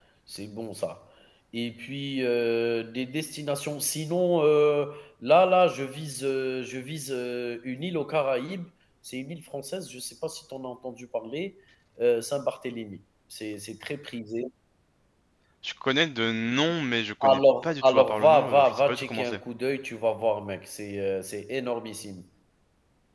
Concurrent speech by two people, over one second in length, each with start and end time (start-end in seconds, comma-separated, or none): 17.2-19.4